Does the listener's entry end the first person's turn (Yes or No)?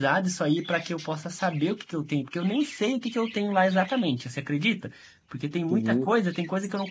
No